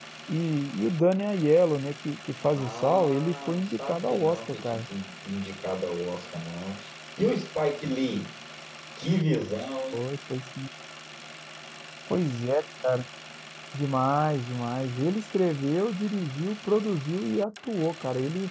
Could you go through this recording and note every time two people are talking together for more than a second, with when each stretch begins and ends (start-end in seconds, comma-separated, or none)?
2.5-4.8